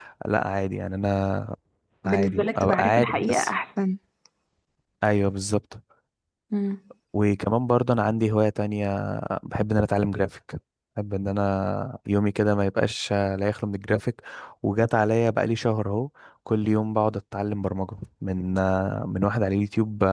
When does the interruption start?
2.0 s

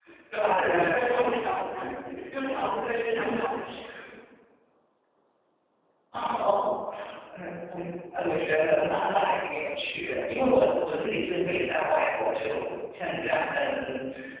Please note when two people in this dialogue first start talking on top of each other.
0.5 s

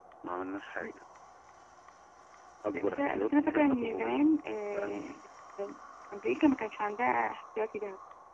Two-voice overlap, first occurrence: 2.7 s

